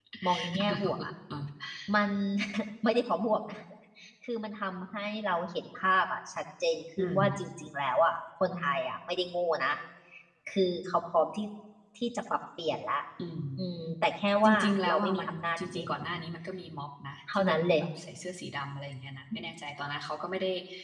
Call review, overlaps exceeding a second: present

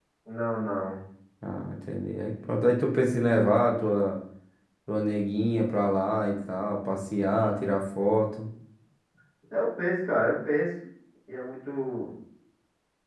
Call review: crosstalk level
none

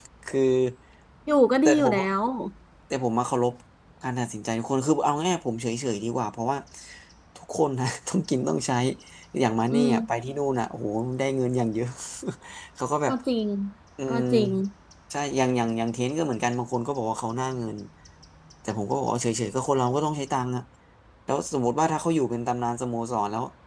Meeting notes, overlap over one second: none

